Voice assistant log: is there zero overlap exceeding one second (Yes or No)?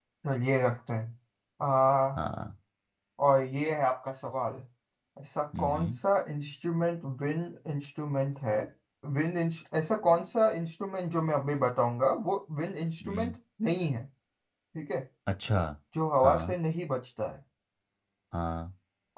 Yes